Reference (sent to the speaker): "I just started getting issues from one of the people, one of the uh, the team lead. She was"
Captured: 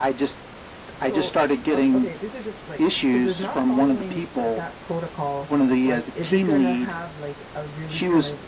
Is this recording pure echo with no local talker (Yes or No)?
No